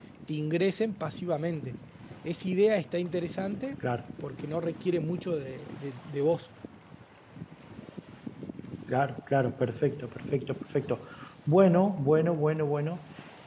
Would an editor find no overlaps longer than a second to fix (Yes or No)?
Yes